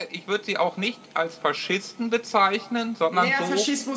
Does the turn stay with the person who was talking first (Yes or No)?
No